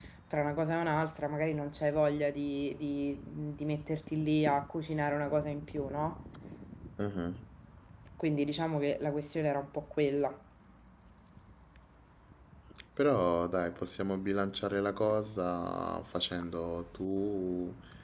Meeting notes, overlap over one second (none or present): none